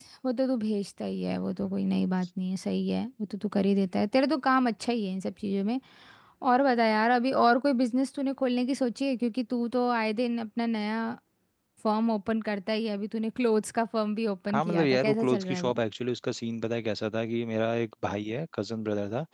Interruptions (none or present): present